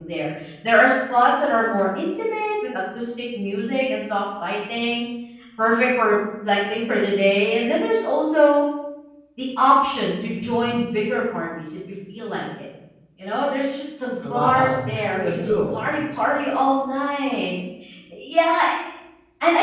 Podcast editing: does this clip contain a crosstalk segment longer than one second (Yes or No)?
Yes